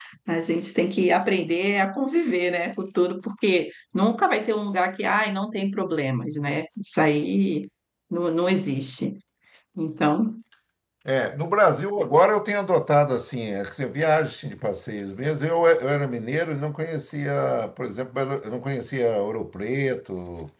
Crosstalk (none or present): none